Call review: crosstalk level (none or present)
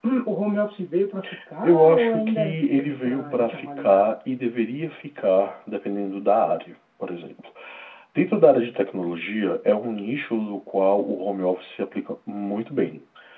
present